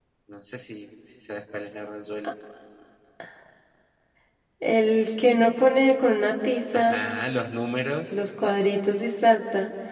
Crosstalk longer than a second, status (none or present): none